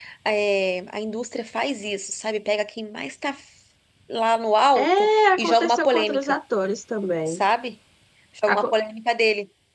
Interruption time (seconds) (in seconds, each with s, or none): 4.8 s